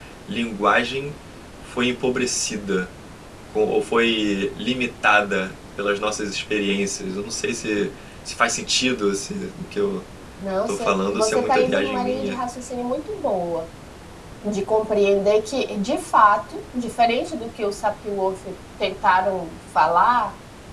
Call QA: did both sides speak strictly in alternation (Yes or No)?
No